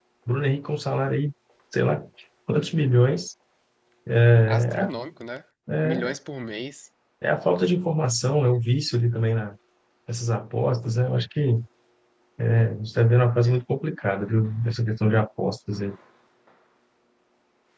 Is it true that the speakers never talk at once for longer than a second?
Yes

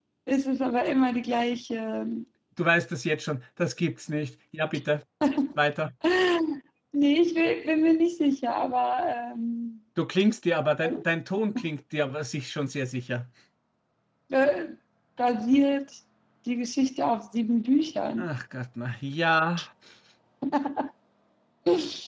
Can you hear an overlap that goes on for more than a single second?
No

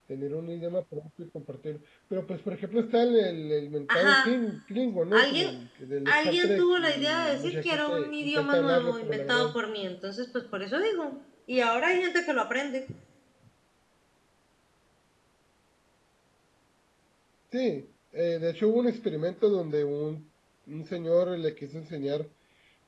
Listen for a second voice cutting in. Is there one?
Yes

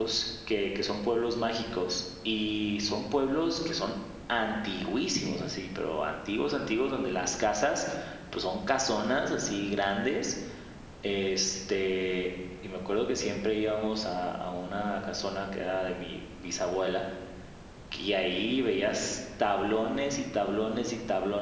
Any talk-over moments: No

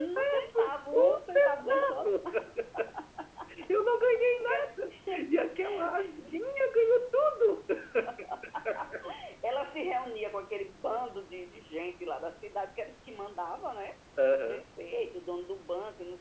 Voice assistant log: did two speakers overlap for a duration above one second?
Yes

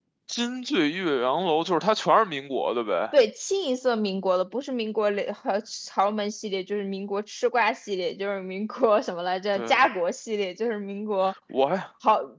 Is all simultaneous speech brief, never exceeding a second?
Yes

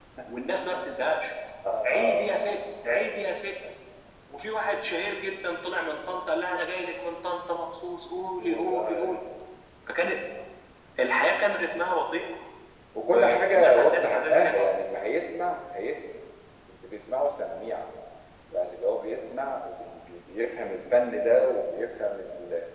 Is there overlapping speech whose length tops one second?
Yes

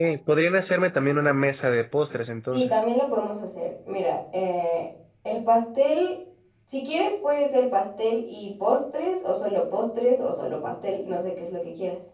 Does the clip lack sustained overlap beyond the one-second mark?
Yes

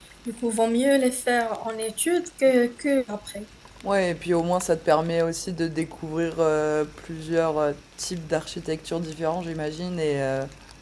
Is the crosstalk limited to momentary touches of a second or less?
Yes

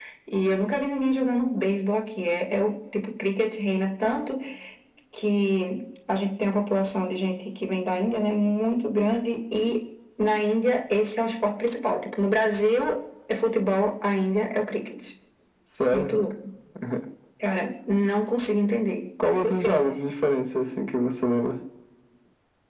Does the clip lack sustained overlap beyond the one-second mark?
Yes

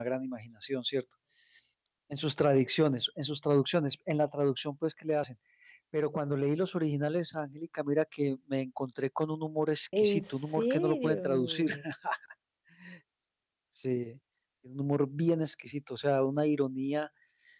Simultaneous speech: Yes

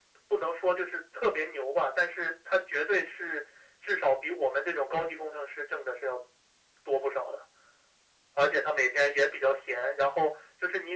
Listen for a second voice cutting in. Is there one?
No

